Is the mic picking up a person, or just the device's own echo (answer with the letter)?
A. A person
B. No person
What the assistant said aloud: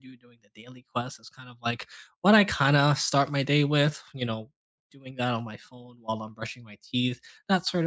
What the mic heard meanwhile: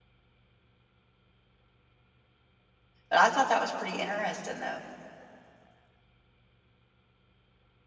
A